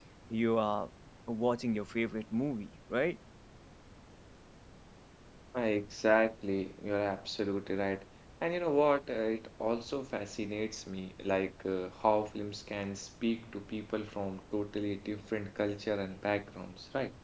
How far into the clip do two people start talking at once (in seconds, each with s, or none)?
none